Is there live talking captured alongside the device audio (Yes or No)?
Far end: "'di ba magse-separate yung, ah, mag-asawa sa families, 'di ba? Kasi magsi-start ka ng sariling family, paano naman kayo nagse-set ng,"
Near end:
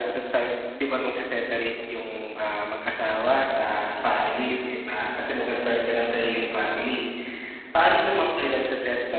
No